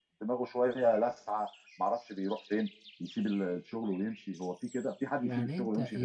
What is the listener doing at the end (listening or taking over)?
taking over